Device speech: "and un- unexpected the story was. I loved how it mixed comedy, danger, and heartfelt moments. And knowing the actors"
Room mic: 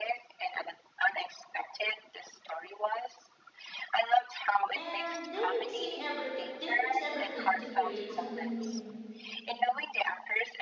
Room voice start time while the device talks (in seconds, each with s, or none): 4.7 s